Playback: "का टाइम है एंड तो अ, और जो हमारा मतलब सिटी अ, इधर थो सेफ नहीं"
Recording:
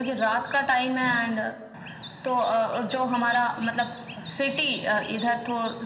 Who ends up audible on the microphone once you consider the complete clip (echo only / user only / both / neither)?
echo only